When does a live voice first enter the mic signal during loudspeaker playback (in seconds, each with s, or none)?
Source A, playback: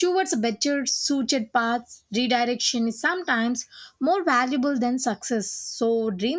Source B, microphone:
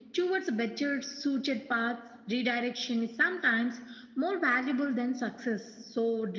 none